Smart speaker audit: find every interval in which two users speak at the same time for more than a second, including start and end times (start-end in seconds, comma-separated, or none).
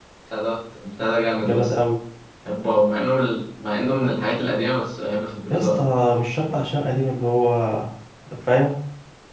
none